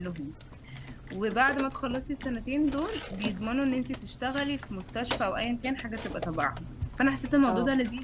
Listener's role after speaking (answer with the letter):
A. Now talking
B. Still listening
B